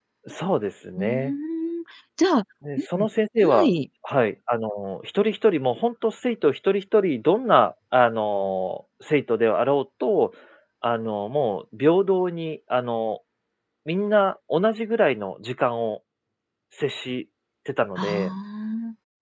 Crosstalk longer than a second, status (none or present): none